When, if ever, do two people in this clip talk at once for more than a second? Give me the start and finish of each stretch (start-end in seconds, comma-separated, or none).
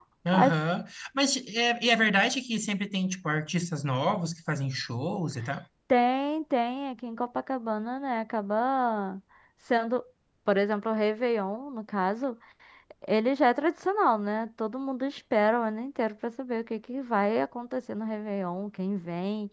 none